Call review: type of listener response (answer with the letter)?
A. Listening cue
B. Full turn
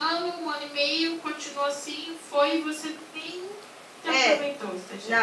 B